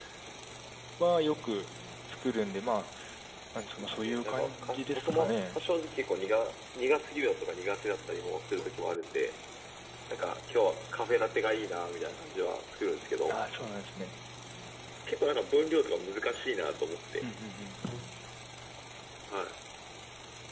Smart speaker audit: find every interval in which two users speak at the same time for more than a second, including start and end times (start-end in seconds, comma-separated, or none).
3.8-5.6